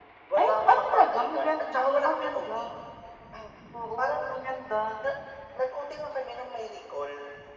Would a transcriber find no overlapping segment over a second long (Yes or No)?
No